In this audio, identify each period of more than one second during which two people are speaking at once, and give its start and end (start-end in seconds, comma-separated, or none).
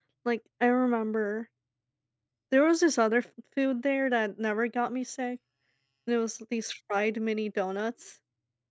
none